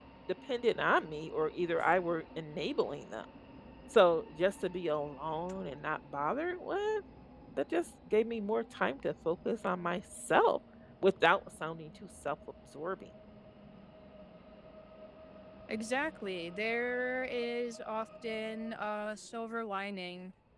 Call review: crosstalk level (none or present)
none